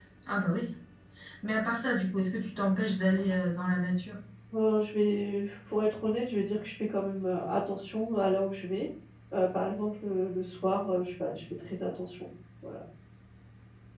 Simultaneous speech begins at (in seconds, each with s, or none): none